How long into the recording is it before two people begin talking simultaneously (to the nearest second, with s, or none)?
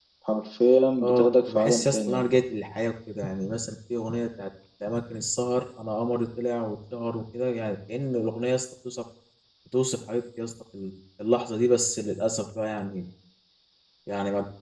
1 s